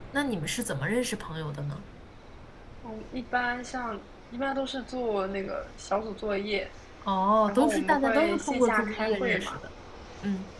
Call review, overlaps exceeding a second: present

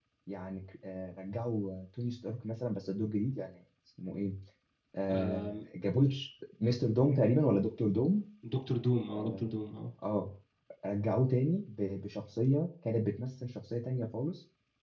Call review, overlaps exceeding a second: none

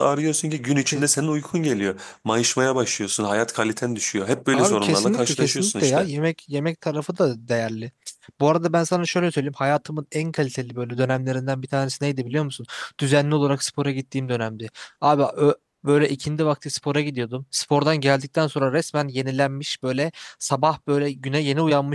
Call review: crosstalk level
present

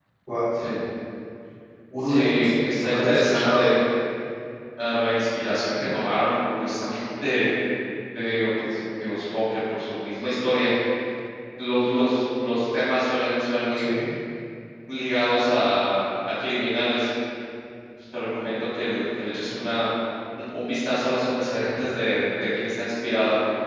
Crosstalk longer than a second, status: present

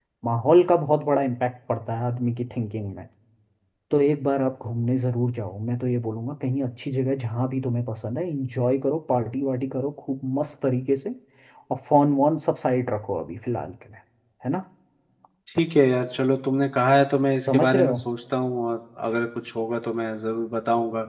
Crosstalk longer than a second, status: none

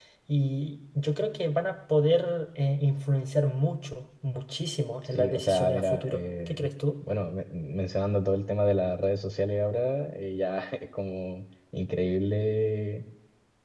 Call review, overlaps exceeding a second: present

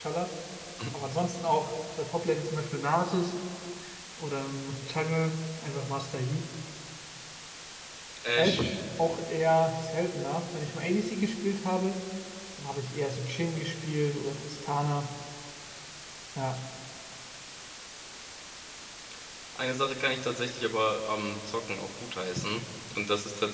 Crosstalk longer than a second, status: none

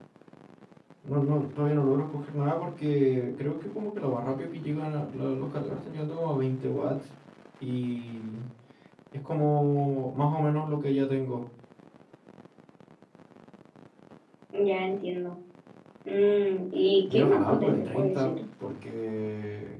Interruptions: present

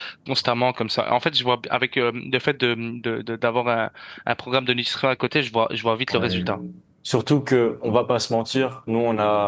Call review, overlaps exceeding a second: none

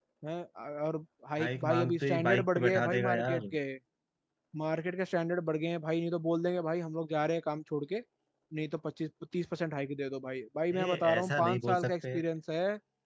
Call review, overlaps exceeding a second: present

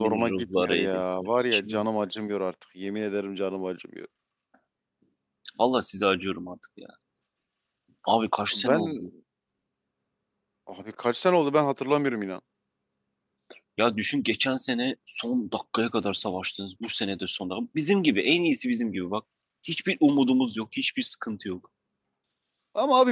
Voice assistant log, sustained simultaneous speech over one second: present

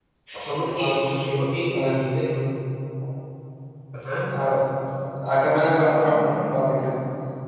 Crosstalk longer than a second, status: none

